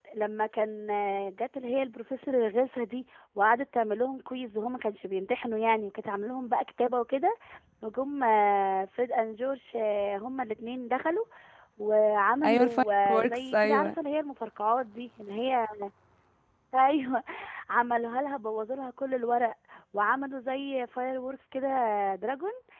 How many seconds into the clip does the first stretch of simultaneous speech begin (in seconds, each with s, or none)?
12.4 s